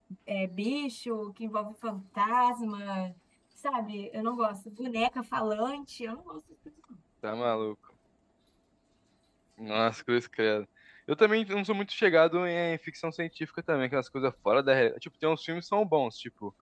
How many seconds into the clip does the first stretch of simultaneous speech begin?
none

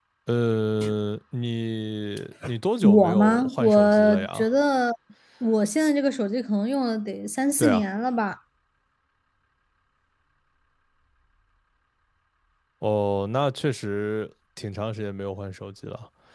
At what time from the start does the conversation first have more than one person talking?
3 s

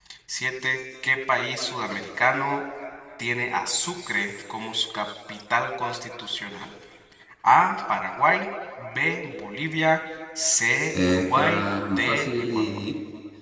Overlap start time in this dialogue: 11 s

